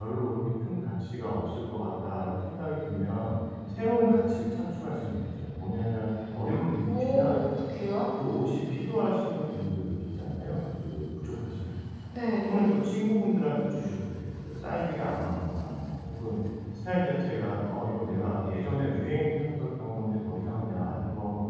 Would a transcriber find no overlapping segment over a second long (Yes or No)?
Yes